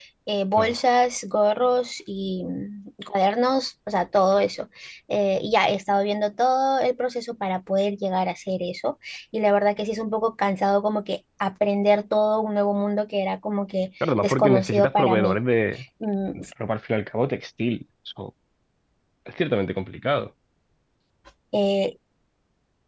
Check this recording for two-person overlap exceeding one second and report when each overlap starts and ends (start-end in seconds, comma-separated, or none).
14.0-15.4